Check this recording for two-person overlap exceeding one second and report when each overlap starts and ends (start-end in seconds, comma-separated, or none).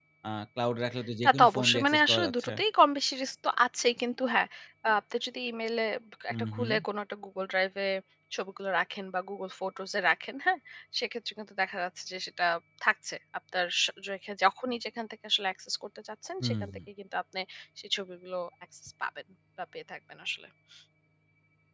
1.2-2.5